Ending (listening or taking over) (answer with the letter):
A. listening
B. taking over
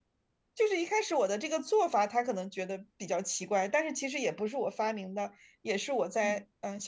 A